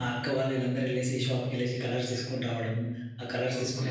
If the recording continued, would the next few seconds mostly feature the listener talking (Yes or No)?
Yes